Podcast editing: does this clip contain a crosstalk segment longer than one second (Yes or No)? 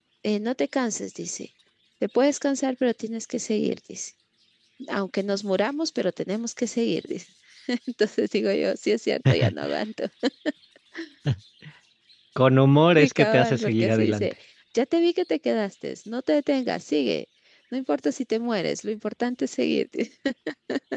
Yes